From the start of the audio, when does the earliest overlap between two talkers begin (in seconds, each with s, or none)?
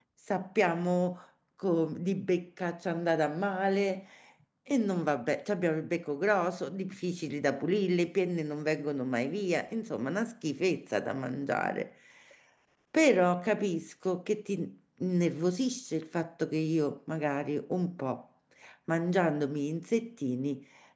none